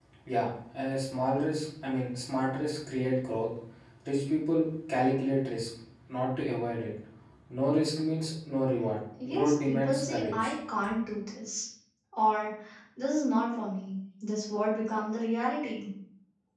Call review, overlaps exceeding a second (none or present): present